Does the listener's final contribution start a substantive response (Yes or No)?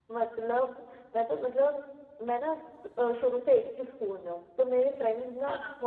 No